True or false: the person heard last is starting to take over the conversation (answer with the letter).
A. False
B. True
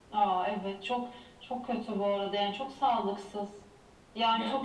B